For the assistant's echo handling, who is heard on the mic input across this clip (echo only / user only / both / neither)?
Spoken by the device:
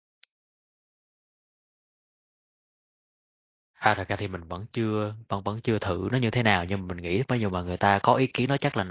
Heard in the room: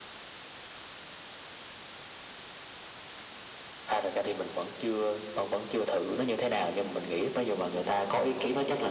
echo only